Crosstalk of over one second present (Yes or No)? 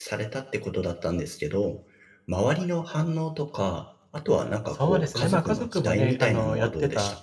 Yes